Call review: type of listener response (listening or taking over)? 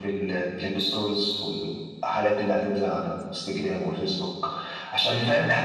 listening